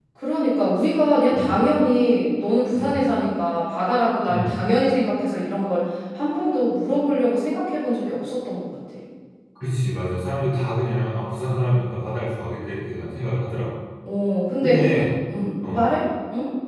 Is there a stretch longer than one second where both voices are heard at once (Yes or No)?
No